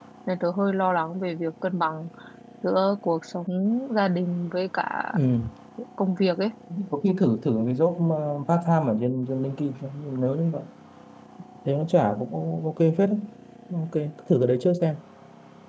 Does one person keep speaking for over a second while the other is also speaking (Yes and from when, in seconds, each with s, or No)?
No